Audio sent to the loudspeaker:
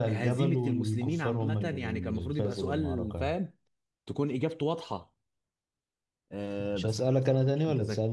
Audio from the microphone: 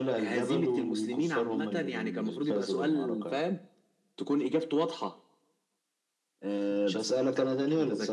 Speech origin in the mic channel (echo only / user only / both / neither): echo only